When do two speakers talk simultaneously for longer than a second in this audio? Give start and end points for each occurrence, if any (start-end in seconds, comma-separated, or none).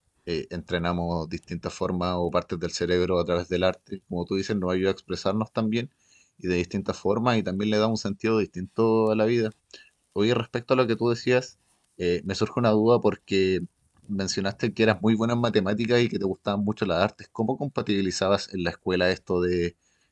none